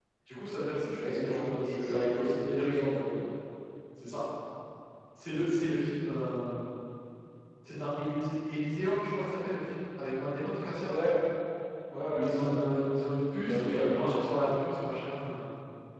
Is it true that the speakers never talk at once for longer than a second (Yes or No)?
No